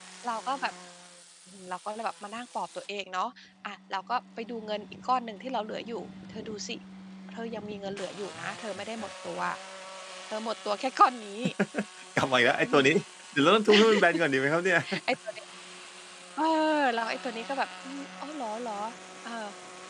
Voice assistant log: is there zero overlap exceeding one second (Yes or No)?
Yes